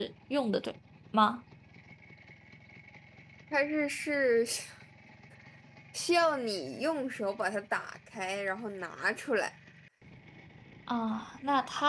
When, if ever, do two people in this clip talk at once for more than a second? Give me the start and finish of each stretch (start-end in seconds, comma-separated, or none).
none